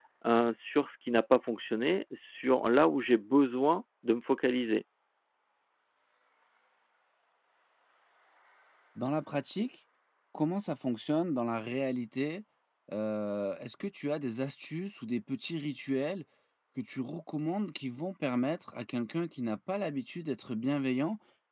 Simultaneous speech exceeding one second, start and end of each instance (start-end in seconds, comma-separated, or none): none